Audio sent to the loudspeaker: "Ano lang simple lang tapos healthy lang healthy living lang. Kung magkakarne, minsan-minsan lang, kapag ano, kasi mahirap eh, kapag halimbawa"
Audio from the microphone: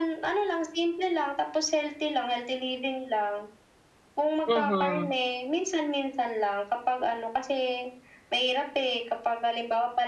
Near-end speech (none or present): present